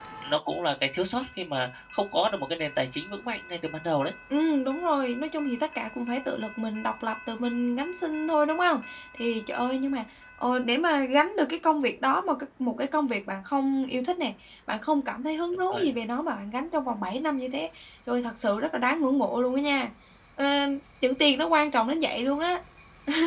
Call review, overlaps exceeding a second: none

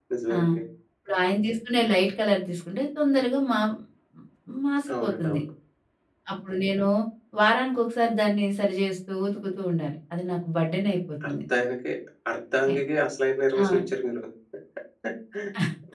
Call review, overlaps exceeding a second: none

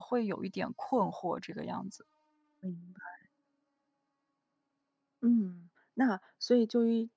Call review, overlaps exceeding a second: none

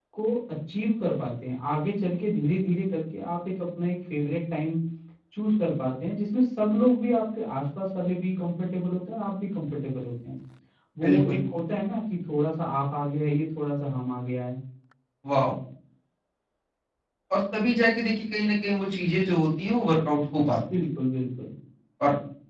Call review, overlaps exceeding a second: none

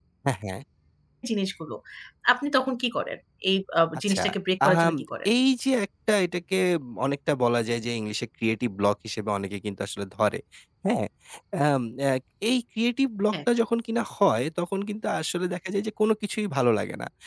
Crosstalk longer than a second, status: none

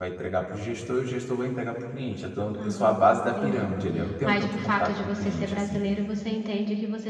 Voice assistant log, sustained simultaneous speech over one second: present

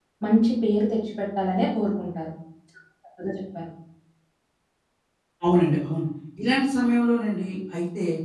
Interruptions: none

